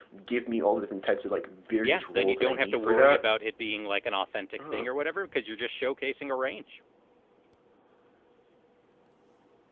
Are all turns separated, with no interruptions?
No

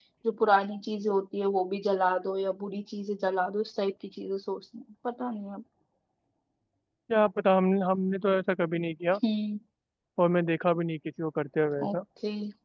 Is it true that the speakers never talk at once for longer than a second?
Yes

